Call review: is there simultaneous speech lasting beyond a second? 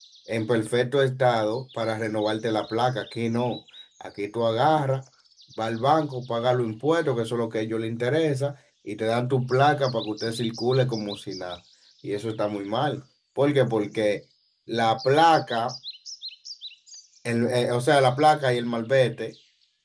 No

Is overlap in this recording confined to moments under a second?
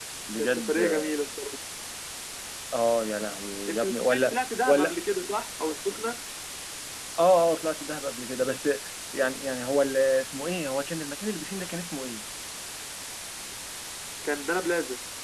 No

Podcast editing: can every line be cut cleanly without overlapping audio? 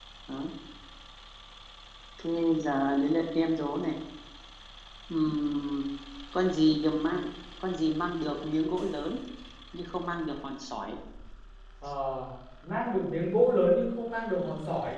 Yes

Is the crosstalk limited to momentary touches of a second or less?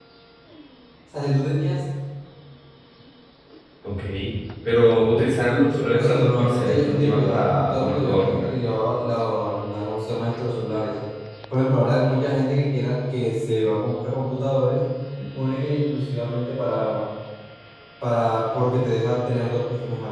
No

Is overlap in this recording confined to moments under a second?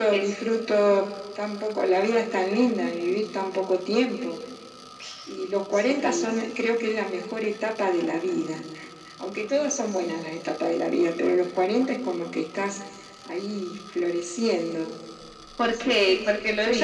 No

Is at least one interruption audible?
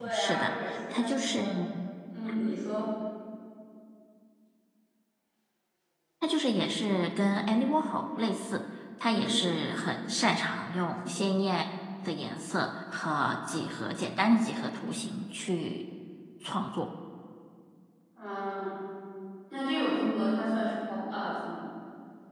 Yes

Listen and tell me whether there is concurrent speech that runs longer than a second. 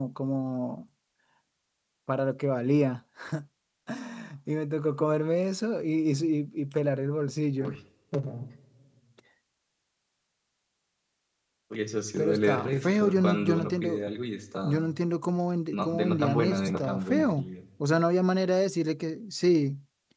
Yes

